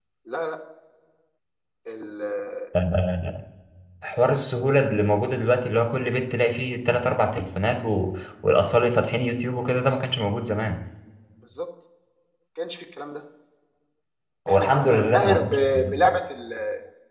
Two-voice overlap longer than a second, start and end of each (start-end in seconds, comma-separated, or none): 14.5-16.1